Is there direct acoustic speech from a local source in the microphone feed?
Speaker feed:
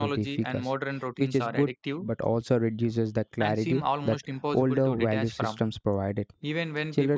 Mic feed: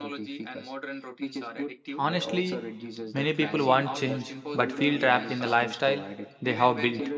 Yes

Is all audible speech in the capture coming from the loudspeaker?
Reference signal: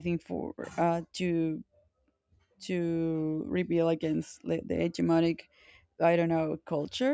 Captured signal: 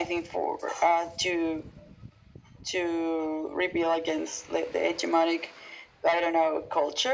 Yes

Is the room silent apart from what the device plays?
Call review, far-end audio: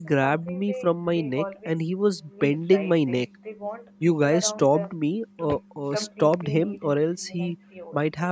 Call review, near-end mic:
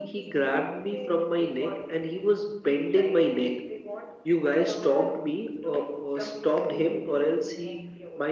Yes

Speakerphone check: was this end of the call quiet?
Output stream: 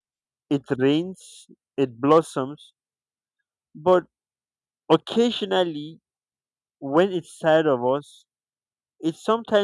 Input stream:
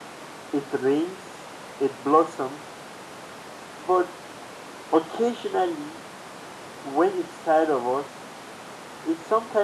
Yes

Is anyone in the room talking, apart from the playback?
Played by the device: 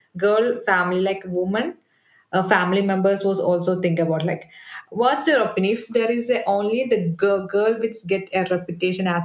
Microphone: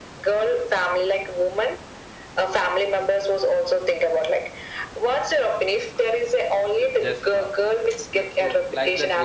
Yes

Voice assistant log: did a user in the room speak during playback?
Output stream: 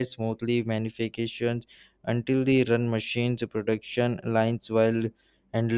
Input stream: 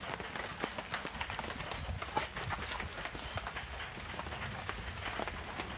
No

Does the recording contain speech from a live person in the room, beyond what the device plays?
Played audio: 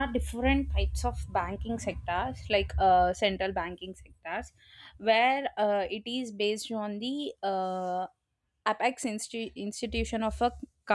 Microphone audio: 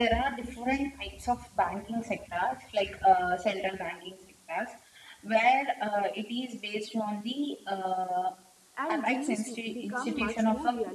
Yes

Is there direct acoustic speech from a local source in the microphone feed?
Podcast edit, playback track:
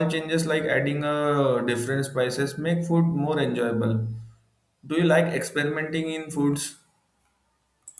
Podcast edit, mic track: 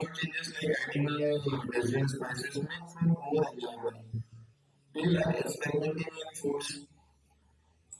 No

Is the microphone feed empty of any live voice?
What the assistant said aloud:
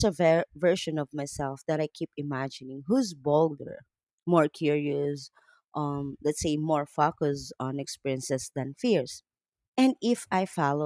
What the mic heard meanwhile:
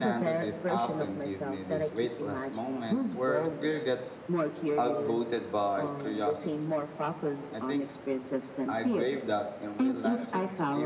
No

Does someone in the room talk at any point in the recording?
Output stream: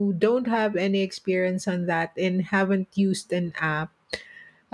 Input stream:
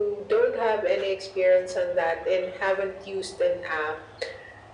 No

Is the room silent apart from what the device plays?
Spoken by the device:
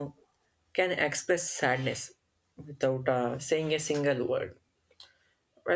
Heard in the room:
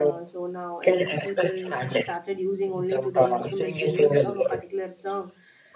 No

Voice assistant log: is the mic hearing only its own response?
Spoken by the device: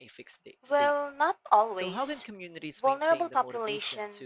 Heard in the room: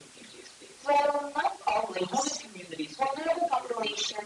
Yes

